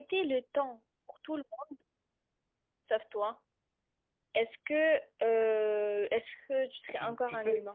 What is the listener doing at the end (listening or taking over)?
taking over